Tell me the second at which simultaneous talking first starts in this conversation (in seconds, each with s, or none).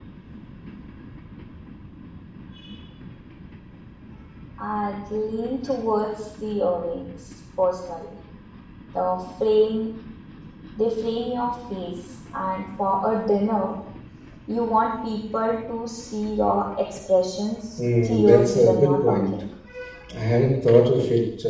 17.8 s